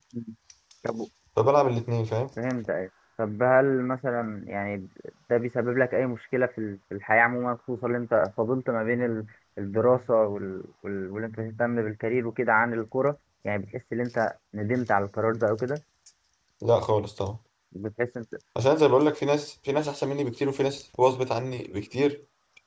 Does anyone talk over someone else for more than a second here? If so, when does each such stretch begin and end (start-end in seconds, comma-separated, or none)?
none